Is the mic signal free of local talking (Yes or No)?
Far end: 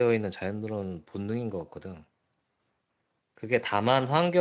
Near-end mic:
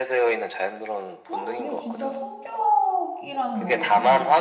No